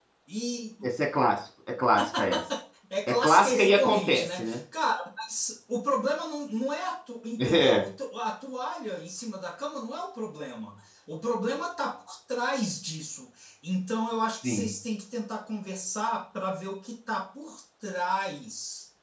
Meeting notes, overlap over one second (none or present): present